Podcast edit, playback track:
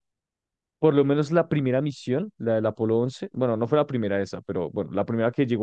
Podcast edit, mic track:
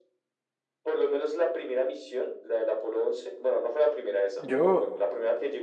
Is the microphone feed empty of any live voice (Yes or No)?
No